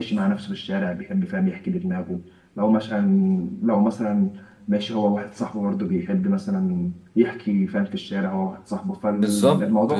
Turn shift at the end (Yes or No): Yes